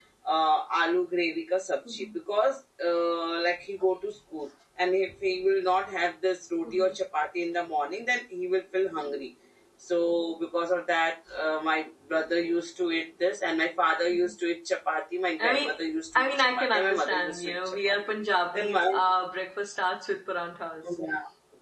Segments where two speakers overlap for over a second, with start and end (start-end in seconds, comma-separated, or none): 16.1-17.9